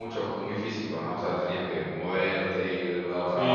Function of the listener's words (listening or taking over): taking over